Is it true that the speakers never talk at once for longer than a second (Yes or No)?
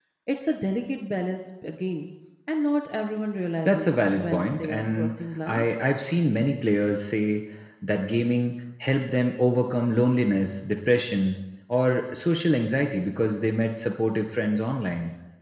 No